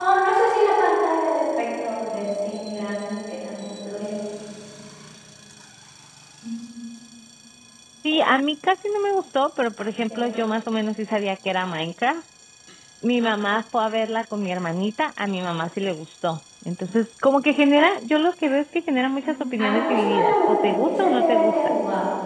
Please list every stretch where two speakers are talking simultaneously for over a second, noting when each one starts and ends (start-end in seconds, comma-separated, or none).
19.2-21.7